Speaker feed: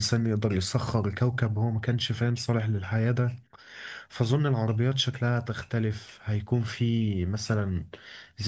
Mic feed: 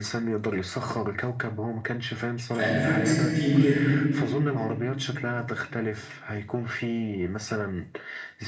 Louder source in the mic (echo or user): user